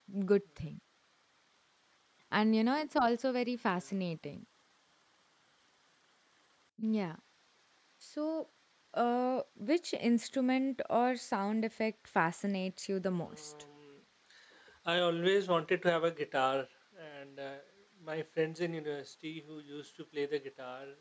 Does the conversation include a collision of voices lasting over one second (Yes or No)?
No